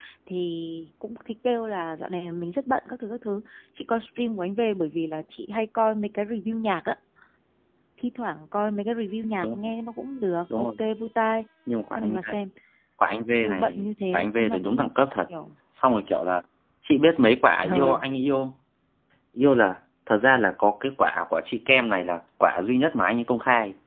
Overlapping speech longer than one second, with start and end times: 13.4-14.9

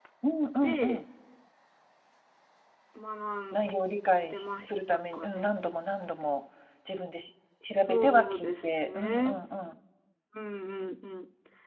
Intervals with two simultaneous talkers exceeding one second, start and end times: 4.2-5.5, 7.9-9.3

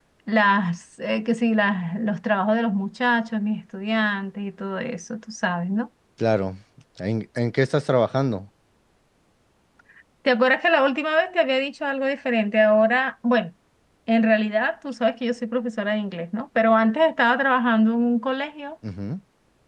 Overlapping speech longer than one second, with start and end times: none

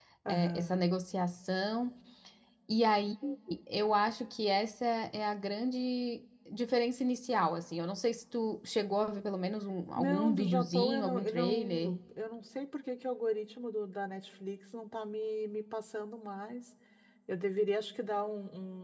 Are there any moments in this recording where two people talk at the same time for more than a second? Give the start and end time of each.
10.0-12.0

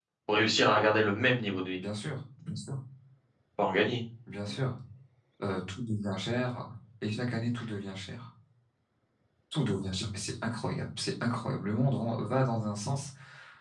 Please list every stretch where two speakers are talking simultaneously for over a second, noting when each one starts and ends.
none

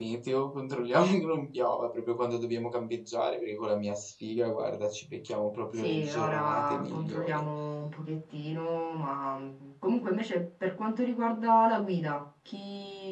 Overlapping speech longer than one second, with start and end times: 5.8-7.4

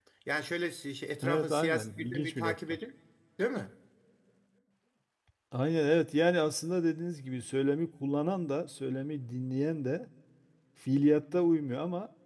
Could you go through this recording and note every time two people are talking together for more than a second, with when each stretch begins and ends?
1.2-2.8

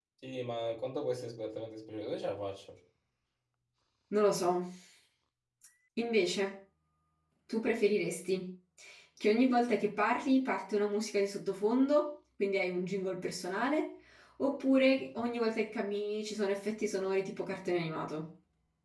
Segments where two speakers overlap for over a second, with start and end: none

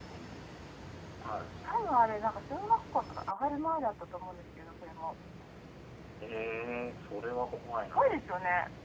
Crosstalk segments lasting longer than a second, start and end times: none

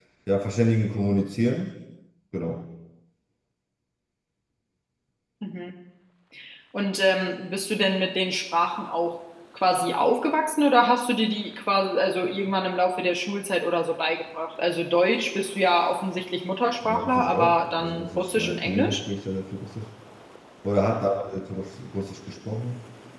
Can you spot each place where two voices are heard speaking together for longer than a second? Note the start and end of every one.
16.8-19.0

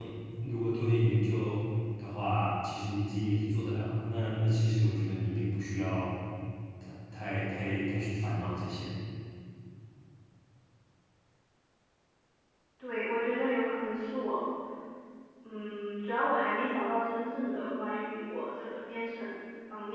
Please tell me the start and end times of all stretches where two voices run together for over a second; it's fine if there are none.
none

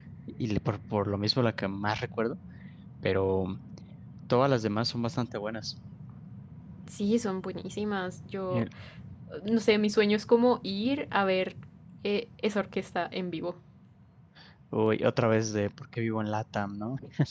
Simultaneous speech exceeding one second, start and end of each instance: none

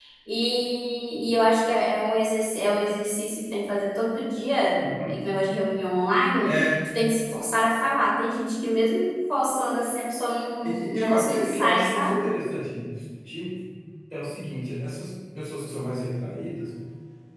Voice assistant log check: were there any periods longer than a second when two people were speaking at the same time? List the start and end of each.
10.6-12.2

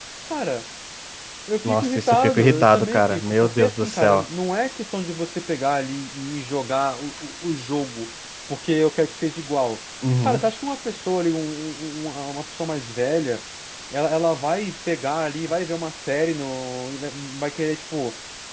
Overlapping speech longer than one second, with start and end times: 1.6-4.2

